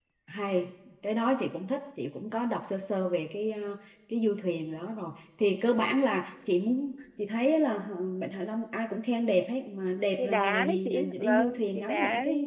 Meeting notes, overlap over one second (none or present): present